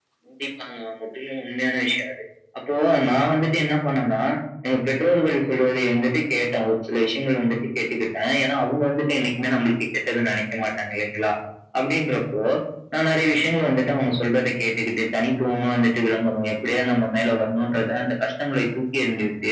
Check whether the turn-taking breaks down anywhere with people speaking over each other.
No

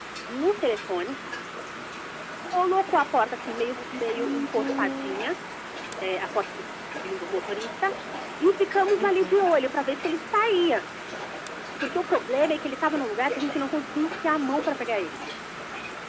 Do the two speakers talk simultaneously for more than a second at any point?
Yes, from 3.9 s

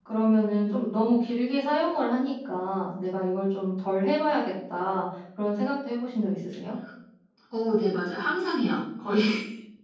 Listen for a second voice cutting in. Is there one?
No

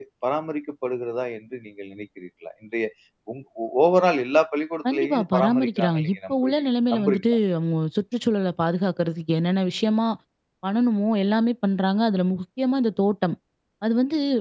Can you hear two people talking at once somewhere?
Yes, from 4.8 s

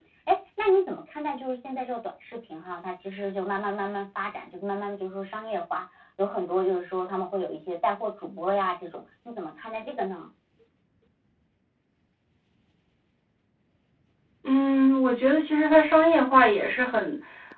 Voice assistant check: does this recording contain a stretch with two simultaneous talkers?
No

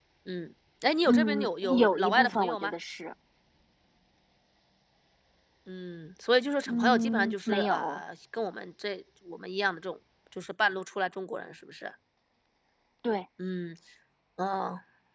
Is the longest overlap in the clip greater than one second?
Yes, from 1.0 s

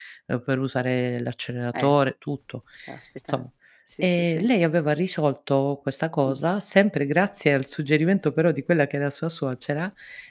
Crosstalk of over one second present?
No

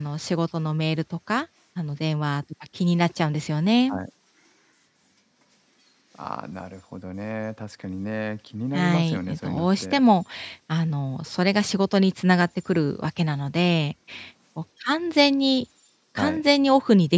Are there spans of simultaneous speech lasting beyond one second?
Yes, from 8.7 s

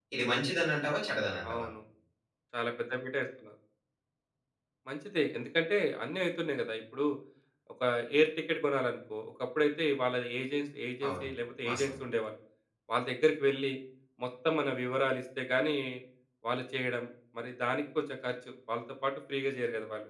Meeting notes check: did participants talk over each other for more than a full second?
No

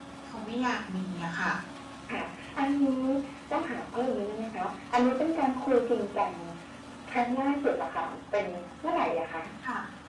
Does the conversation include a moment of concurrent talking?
No

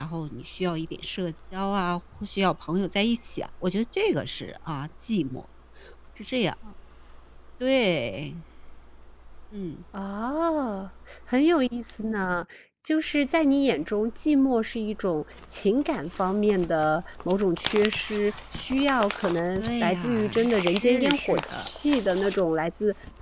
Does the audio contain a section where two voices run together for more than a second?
Yes, from 19.6 s

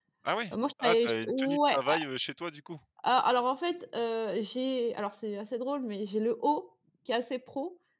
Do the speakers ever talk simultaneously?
Yes, from 0.5 s

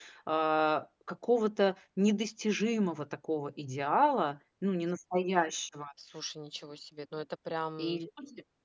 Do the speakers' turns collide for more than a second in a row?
No

